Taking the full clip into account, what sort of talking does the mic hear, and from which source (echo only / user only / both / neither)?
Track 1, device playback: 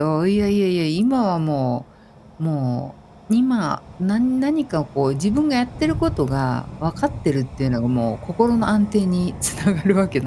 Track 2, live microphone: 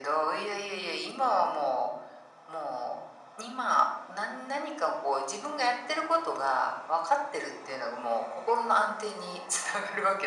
echo only